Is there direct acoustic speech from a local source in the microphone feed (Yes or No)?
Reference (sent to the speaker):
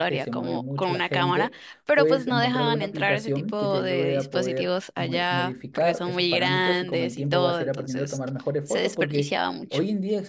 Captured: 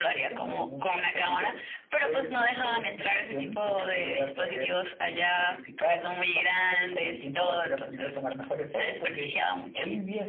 No